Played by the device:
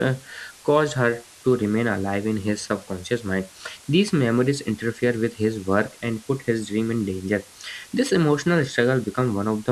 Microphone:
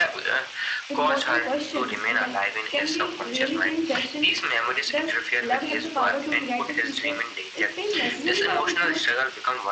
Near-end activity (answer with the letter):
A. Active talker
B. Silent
A